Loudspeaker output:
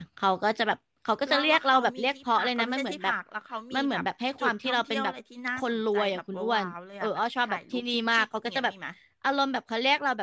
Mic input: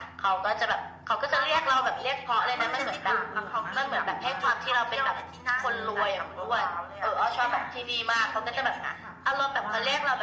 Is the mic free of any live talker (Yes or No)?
No